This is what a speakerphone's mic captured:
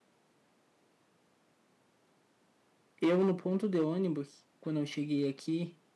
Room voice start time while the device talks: 3.0 s

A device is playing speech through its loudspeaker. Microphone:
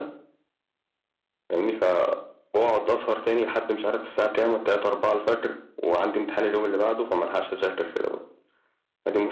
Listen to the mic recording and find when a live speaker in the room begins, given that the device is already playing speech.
none

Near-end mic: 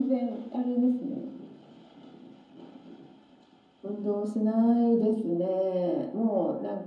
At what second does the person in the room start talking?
none

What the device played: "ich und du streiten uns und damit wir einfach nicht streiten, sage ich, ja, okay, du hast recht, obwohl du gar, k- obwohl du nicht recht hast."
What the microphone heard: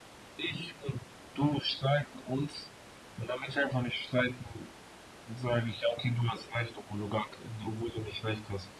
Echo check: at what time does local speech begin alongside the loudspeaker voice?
none

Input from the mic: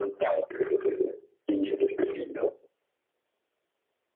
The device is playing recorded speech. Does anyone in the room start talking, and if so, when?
none

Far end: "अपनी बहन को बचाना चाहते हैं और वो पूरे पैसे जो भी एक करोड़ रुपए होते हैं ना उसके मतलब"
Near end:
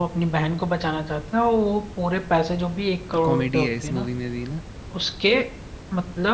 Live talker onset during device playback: 3.1 s

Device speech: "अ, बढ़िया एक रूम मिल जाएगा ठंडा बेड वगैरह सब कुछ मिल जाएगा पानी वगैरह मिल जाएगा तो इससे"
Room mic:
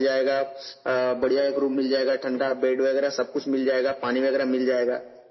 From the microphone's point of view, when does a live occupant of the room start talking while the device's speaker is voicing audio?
none

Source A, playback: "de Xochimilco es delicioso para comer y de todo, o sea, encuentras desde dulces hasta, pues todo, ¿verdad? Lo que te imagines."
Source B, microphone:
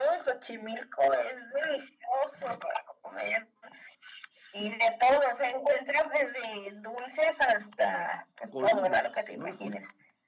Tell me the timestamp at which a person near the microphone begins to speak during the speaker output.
8.5 s

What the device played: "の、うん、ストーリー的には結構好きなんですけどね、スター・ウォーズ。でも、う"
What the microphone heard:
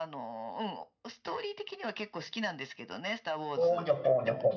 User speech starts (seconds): 3.5 s

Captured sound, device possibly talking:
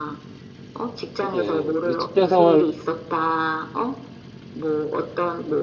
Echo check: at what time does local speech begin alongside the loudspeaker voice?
1.2 s

